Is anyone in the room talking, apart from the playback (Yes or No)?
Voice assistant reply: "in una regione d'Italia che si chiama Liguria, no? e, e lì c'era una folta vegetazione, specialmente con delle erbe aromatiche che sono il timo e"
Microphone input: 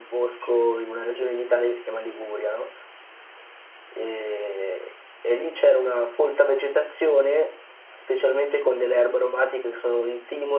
No